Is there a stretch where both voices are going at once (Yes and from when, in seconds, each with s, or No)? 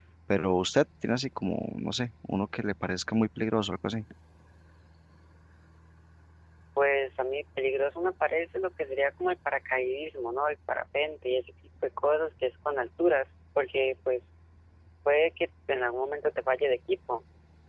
No